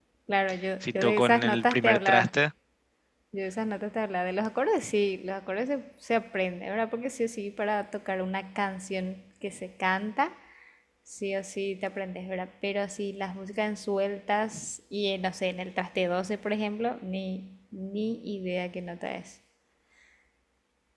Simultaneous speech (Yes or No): Yes